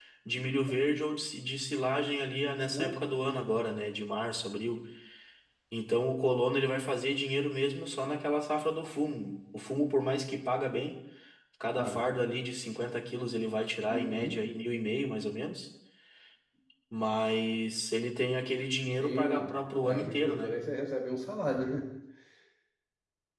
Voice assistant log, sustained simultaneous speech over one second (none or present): present